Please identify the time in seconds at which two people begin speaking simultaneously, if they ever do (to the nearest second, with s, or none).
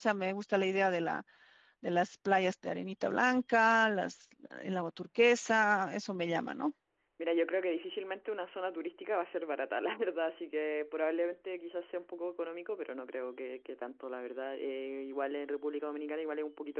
none